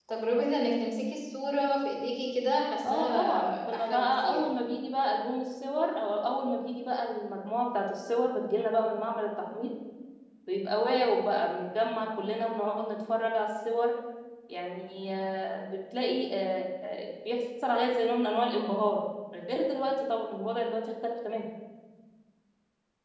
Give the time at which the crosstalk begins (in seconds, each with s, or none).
2.8 s